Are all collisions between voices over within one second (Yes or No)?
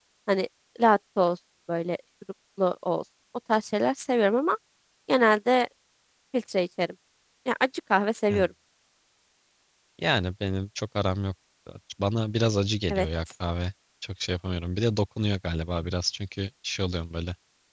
Yes